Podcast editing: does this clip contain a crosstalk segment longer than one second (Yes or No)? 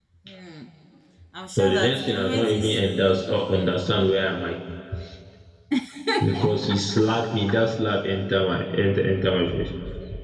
Yes